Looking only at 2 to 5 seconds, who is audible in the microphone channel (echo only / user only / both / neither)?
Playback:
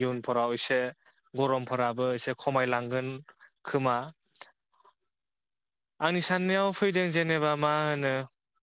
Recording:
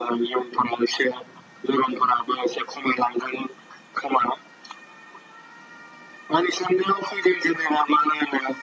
echo only